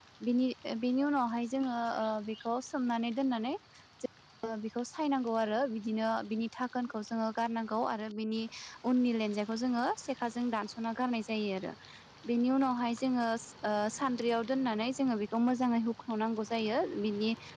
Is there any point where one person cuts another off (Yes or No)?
No